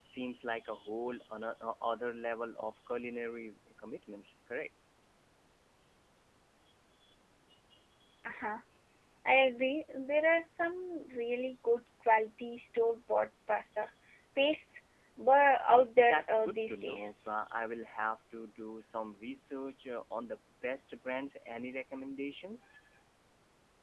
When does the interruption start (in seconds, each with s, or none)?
15.7 s